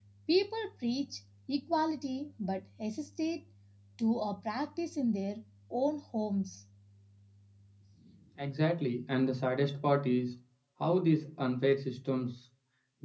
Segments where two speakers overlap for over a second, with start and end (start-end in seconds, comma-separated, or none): none